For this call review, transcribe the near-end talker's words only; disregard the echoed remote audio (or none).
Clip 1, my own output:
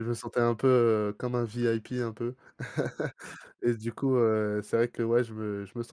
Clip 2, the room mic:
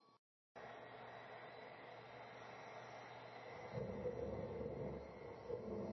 none